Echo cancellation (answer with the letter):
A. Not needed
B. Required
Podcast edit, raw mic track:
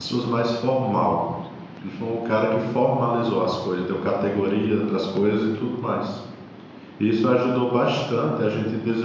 A